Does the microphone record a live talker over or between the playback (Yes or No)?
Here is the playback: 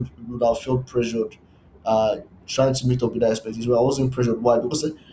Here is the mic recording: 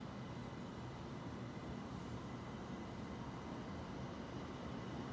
No